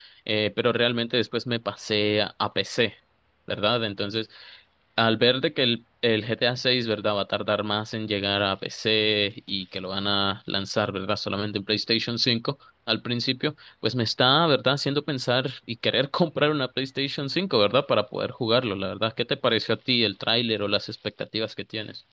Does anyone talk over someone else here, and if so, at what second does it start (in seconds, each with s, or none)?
none